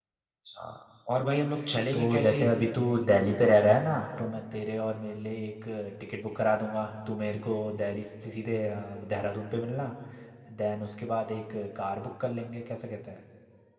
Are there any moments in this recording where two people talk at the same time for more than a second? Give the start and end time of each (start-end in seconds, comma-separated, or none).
none